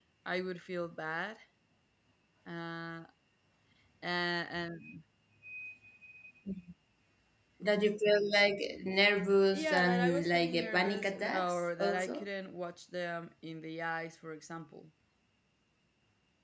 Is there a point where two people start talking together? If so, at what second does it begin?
9.5 s

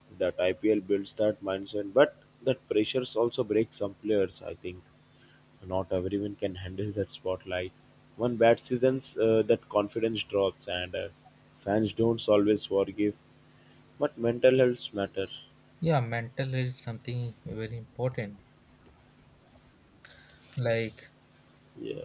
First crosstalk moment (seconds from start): none

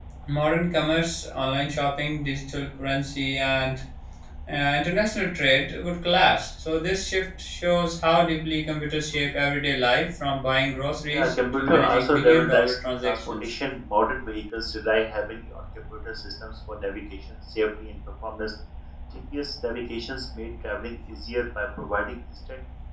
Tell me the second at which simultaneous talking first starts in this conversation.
11.1 s

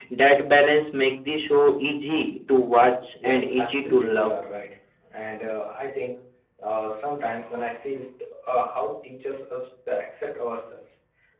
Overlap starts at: 3.1 s

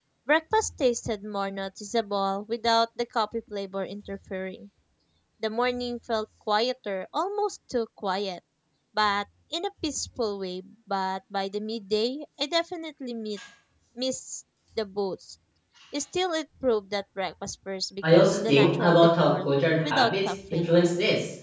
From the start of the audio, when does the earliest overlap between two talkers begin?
18.0 s

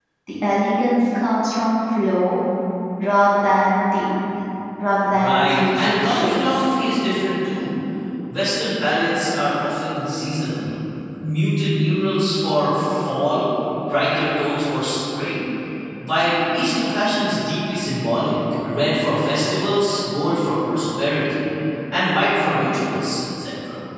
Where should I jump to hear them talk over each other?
5.1 s

